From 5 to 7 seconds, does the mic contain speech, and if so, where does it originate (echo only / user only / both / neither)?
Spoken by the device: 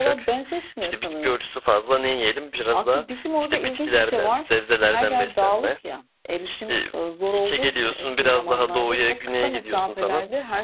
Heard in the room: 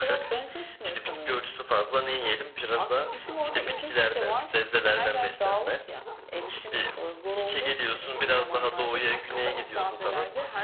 echo only